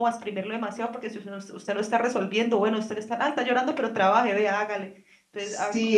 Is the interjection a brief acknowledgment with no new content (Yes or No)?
No